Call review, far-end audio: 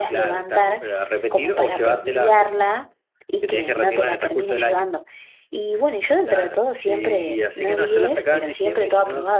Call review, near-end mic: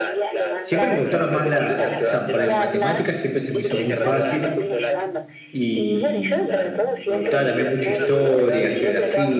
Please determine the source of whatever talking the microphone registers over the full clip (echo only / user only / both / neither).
both